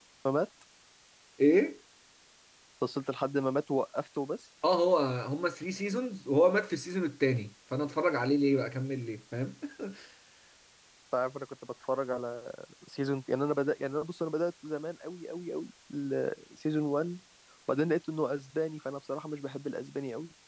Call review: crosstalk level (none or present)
none